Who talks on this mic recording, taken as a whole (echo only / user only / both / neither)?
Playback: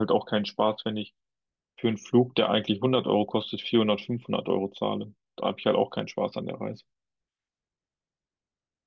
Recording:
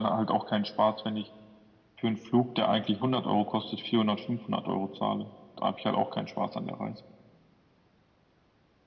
echo only